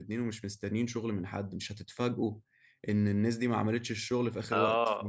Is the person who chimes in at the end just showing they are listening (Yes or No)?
No